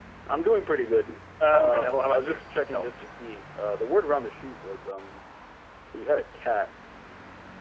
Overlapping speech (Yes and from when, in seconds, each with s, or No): Yes, from 1.4 s